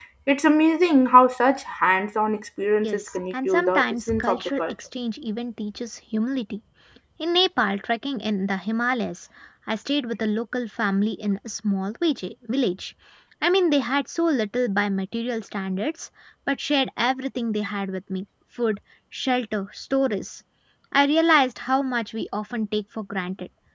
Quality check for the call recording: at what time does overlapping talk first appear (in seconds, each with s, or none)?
2.8 s